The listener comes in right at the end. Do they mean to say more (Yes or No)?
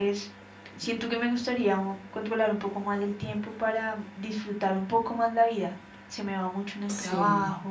No